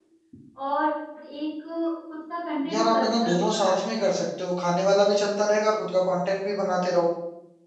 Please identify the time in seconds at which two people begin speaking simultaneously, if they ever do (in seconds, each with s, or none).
2.7 s